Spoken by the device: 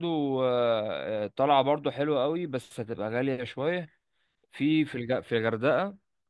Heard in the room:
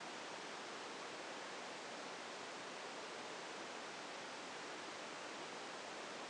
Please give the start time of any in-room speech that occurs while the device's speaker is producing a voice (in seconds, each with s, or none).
none